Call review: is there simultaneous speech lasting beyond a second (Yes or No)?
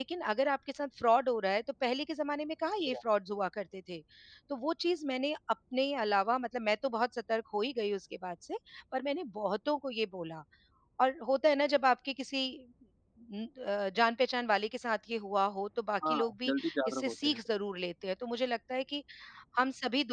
Yes